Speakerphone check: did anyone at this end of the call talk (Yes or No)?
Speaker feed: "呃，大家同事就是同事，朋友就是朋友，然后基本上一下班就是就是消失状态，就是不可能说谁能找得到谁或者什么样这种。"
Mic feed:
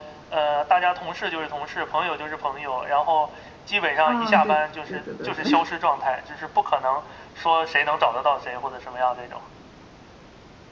Yes